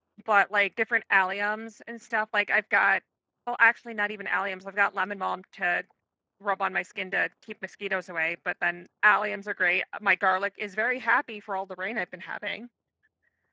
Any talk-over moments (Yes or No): No